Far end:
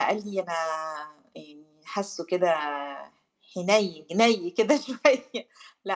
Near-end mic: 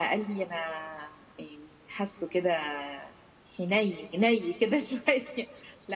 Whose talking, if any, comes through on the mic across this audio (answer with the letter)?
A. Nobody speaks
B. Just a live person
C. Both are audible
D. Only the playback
D